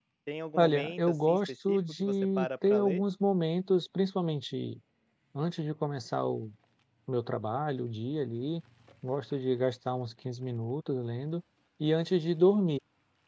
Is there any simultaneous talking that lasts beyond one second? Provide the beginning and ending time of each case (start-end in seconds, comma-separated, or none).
0.6-3.0